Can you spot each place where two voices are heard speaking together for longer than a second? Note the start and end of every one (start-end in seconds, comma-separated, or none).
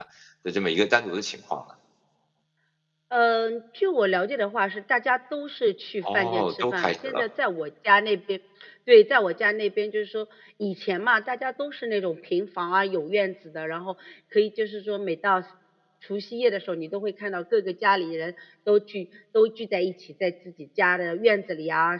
6.0-7.2